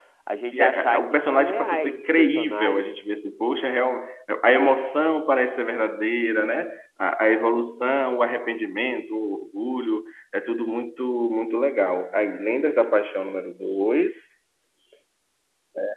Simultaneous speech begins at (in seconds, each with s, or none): 0.5 s